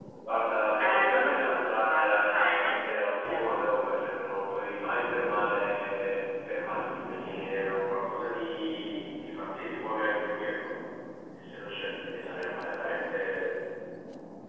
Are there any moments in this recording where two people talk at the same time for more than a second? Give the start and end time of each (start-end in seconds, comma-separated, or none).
0.8-3.5